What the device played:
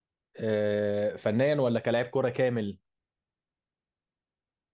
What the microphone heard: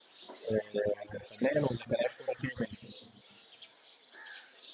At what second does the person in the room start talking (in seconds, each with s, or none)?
none